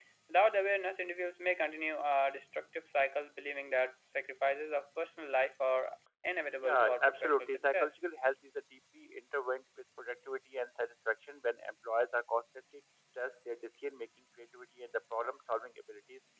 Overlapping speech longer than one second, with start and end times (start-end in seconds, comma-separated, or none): 6.6-8.0